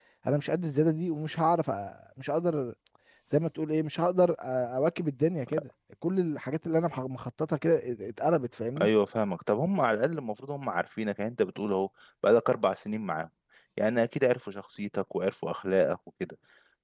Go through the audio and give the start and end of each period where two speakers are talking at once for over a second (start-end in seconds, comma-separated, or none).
none